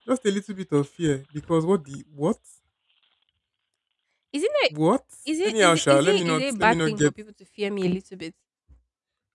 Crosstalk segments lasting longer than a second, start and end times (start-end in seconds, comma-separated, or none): 5.5-7.1